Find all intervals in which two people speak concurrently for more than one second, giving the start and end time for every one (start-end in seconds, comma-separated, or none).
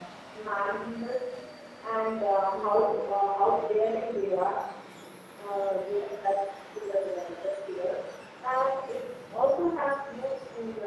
2.5-4.4